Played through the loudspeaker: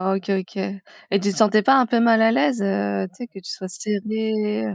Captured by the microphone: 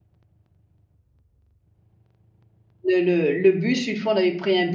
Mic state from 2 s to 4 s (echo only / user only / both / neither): user only